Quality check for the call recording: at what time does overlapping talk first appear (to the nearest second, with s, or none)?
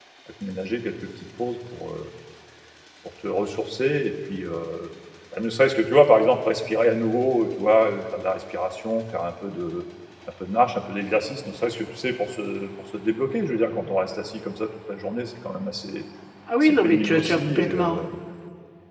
17 s